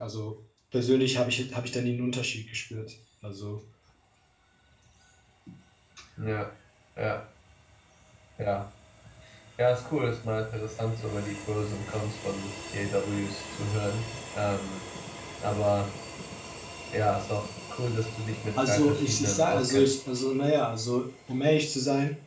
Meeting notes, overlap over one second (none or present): present